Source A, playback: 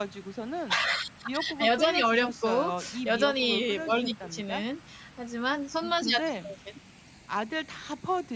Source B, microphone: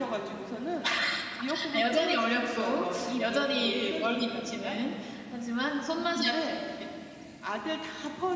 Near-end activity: none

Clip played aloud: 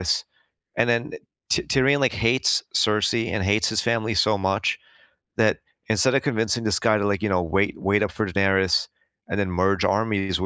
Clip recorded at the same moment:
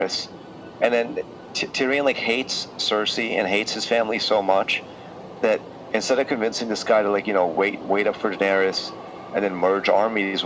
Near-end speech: none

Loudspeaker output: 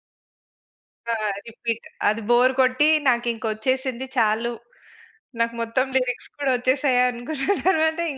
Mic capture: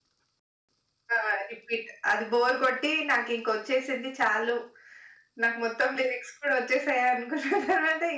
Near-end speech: none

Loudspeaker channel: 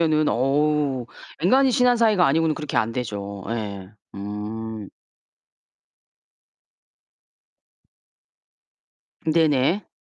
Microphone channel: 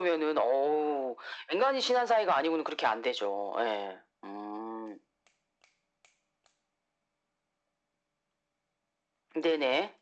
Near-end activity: none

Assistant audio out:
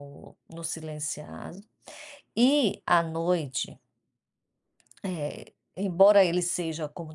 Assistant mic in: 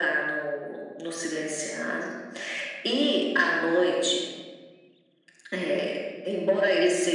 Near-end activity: none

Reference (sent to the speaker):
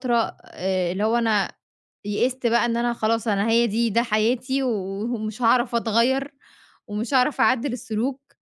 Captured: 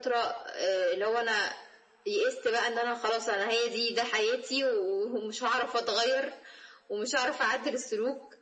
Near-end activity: none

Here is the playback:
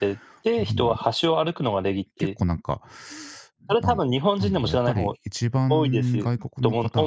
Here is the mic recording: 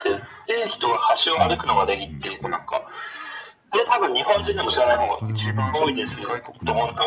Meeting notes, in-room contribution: present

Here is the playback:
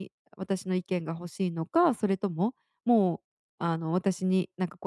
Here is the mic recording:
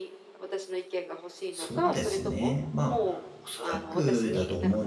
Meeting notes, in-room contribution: present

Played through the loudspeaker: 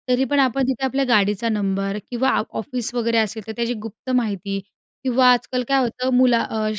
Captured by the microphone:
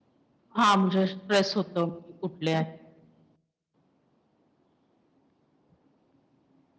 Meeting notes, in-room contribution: present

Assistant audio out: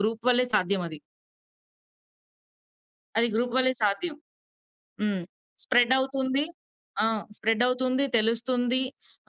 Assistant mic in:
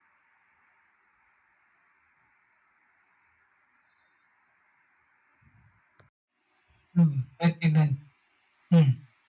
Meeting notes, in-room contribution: present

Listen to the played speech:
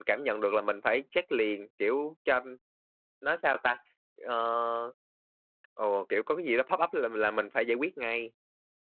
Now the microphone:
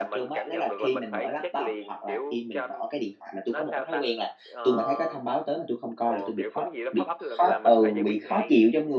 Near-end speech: present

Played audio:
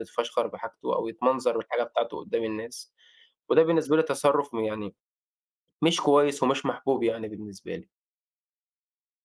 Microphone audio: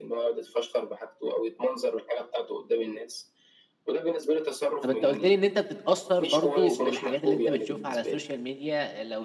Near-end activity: present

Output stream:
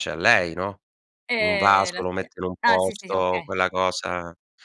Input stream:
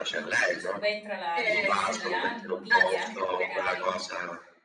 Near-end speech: present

